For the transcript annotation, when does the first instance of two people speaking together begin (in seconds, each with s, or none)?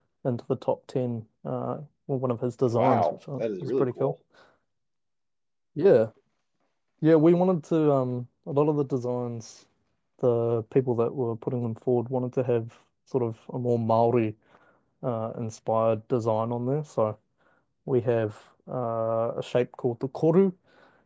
2.7 s